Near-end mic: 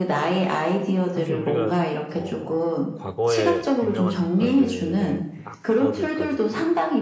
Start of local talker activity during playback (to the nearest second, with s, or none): 1 s